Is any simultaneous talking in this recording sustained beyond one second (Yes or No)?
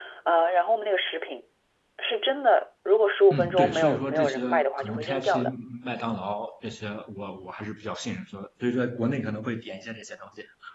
Yes